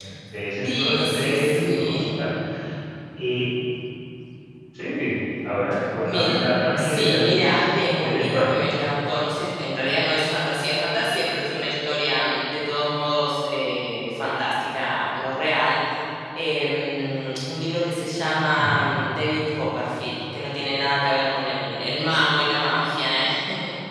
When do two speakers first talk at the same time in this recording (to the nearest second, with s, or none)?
1 s